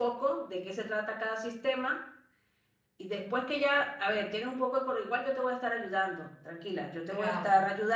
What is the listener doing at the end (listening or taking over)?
listening